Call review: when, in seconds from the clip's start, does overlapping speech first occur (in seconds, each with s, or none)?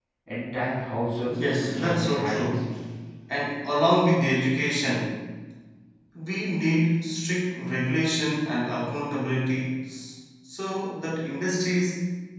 1.3 s